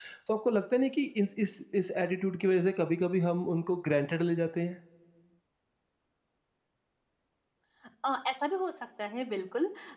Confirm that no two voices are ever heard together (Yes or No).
Yes